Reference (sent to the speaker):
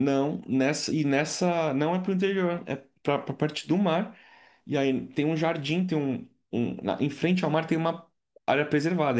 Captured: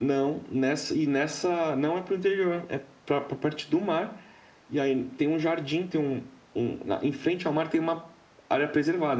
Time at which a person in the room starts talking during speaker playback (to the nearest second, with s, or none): none